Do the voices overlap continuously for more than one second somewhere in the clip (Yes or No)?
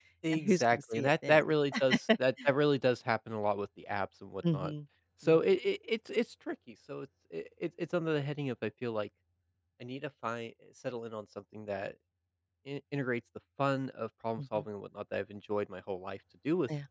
Yes